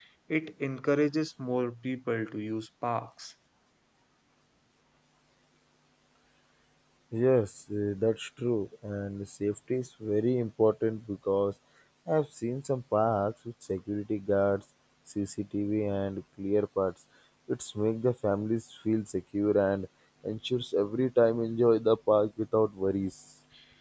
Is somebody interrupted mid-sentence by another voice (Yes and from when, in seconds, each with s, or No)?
No